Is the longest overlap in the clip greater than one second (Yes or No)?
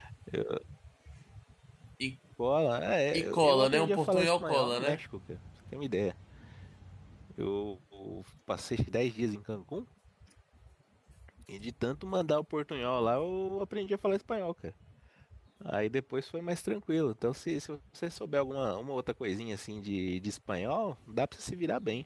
Yes